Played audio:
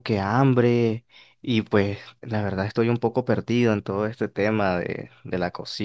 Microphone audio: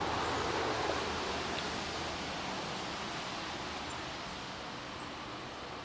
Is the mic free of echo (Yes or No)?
Yes